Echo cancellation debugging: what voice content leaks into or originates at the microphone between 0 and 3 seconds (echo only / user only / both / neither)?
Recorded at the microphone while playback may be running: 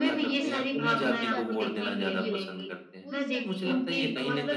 both